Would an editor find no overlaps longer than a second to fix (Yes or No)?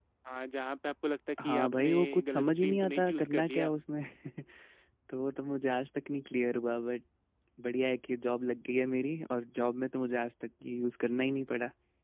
No